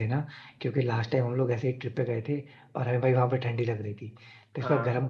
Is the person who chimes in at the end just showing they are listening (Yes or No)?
Yes